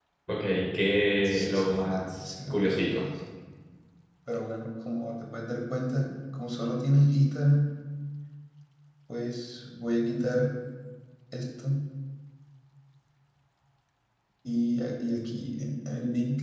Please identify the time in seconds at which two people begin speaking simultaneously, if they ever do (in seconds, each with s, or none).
1.2 s